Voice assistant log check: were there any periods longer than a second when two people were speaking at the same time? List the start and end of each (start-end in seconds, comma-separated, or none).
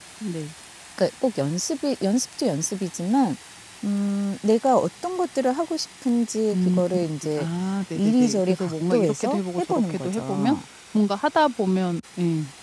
8.0-10.6